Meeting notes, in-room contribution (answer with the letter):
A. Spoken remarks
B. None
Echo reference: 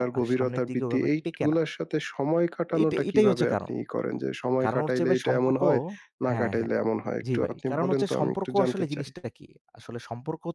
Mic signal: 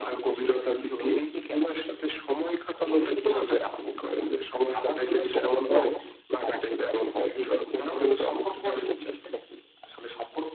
B